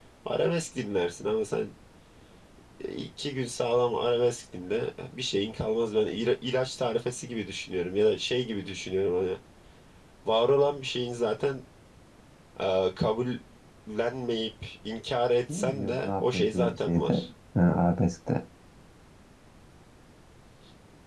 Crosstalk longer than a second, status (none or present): present